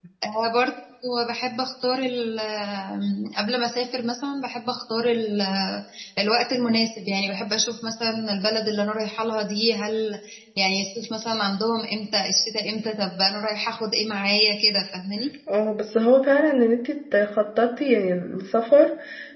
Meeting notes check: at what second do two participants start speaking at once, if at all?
none

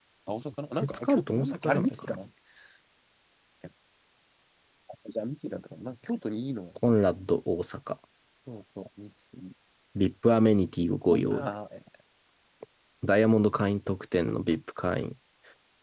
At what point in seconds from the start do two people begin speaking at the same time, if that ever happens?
0.8 s

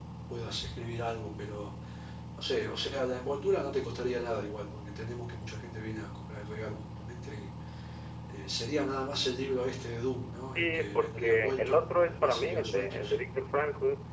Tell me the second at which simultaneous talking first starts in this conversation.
10.6 s

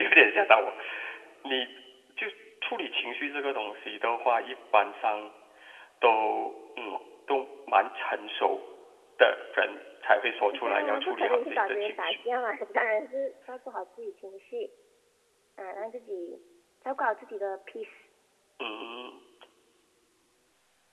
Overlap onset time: 10.4 s

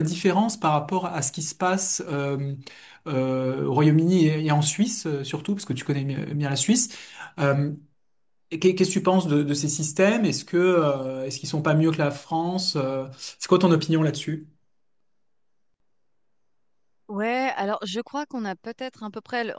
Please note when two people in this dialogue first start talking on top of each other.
none

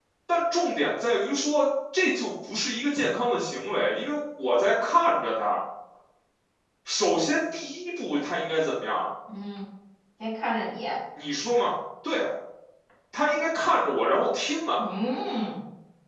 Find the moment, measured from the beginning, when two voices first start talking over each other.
none

